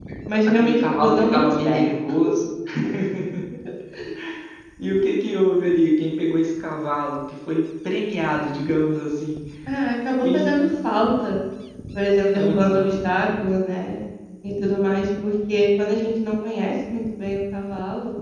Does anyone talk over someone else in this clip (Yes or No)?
Yes